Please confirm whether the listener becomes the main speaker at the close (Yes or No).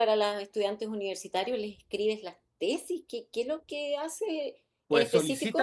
Yes